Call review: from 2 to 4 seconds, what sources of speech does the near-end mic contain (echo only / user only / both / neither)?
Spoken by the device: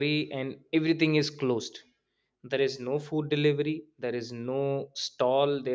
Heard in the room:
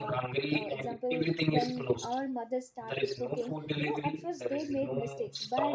both